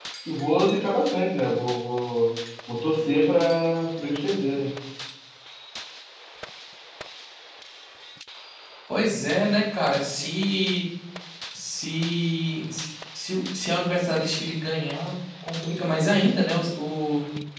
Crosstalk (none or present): none